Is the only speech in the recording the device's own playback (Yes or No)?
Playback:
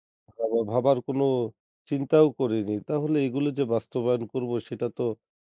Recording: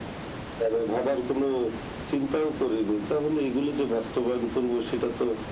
Yes